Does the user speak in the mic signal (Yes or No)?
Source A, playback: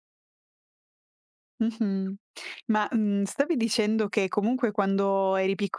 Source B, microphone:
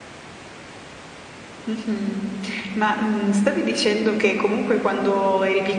No